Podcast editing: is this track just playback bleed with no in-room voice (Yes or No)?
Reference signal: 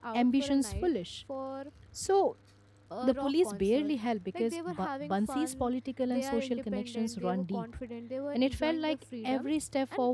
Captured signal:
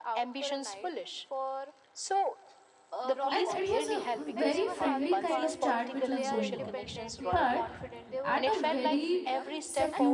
No